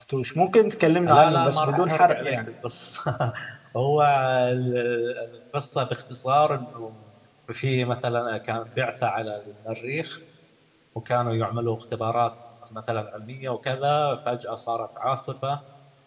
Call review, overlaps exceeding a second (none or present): present